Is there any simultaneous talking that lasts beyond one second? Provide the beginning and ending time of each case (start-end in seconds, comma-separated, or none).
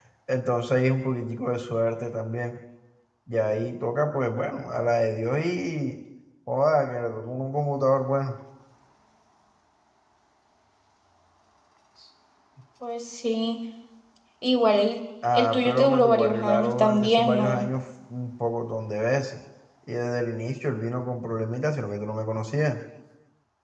15.3-17.6